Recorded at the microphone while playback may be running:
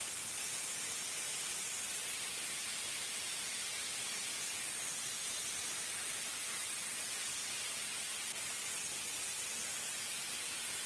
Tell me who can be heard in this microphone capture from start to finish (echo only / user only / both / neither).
neither